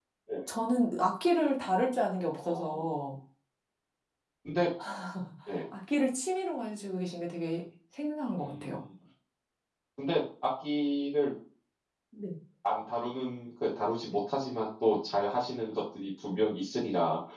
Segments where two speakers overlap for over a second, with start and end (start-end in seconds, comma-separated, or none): none